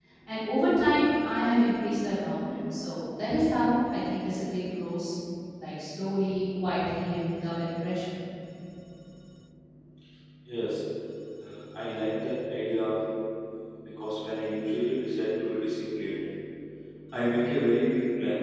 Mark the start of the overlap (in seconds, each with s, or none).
none